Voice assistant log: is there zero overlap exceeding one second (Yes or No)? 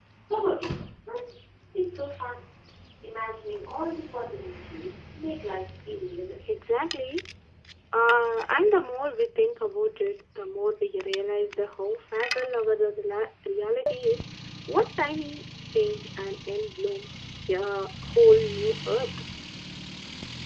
Yes